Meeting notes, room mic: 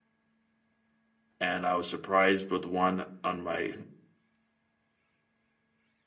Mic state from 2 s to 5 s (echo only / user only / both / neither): user only